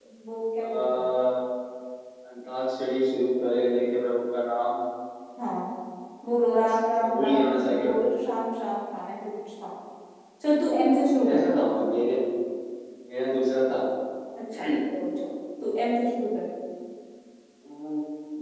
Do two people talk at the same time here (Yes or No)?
Yes